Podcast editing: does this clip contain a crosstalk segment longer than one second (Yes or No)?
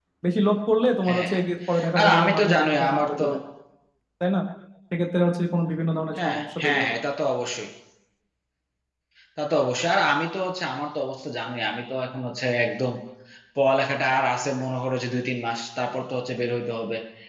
Yes